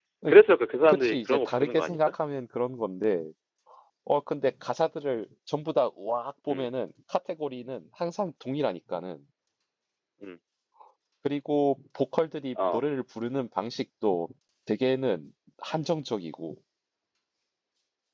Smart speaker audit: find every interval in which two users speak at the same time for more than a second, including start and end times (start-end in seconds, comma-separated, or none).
0.9-2.1